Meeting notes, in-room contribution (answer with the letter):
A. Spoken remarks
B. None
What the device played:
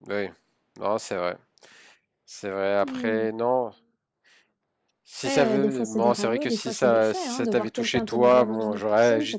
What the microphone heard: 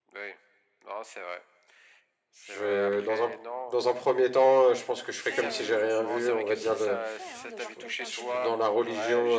A